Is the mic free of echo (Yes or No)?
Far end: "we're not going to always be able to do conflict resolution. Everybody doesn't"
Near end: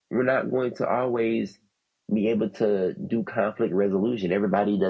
No